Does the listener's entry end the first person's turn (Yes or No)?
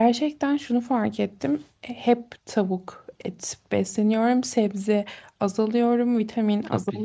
Yes